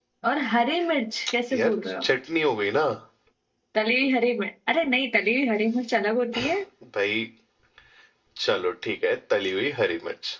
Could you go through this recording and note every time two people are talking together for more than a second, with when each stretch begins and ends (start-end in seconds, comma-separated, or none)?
none